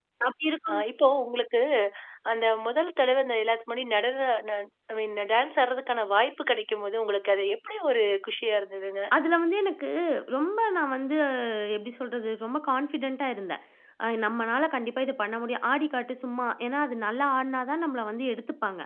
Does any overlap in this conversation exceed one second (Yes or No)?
No